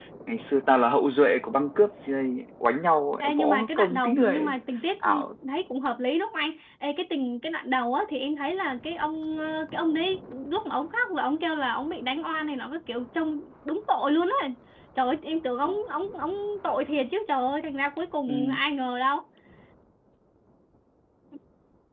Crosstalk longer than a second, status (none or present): present